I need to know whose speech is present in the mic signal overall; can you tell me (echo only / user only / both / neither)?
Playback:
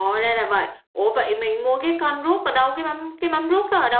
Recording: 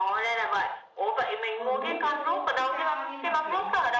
both